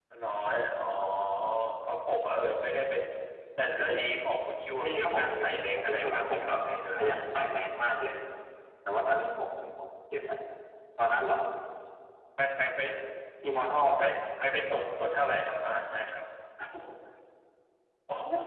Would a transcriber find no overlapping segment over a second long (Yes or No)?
No